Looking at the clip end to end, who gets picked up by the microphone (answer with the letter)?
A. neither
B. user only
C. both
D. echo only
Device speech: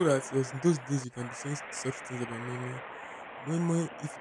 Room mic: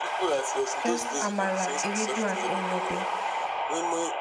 C